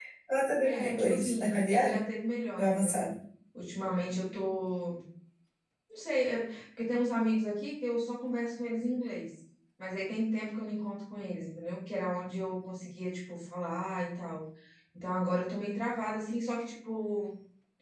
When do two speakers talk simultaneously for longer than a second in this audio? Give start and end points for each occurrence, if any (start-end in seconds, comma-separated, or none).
0.6-2.0